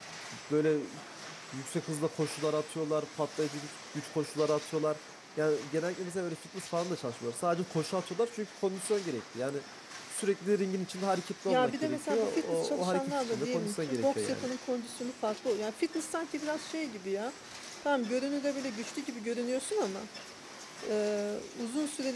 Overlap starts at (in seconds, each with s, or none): 11.5 s